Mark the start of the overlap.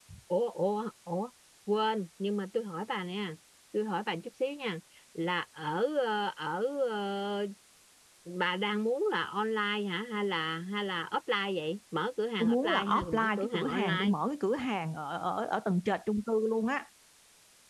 12.4 s

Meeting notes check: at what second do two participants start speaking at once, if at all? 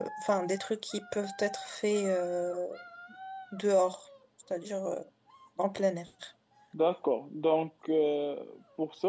none

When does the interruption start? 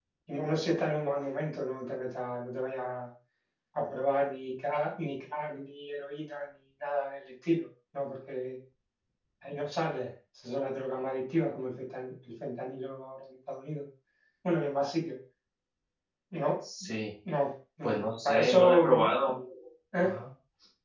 17.8 s

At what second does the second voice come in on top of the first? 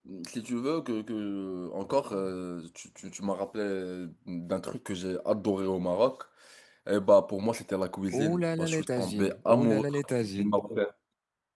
8.1 s

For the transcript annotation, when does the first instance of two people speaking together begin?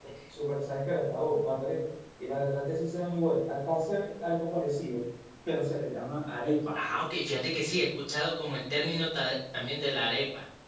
none

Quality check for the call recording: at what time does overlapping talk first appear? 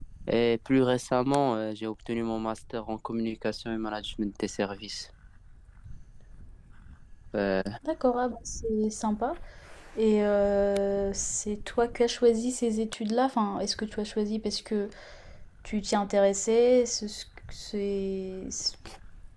none

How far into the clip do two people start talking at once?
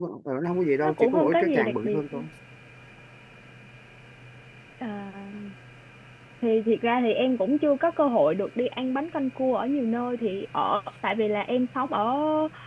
0.8 s

